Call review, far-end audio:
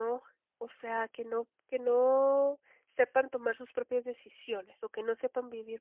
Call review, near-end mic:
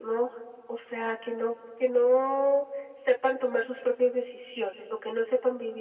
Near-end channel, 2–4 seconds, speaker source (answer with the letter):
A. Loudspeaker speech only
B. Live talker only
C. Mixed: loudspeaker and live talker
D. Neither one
A